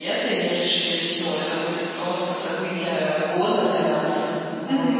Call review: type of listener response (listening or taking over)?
taking over